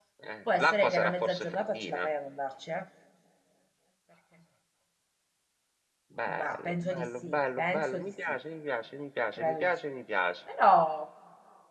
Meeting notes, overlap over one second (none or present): present